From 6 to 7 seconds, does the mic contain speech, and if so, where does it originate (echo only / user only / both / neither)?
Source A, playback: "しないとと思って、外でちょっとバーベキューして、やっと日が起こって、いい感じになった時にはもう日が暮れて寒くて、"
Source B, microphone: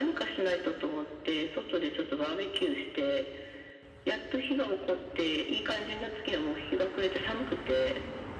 echo only